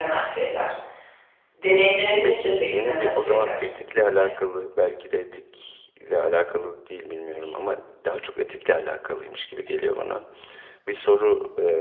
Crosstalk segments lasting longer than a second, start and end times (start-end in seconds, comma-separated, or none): 2.2-3.5